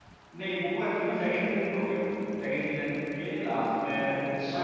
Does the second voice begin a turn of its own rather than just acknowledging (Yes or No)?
Yes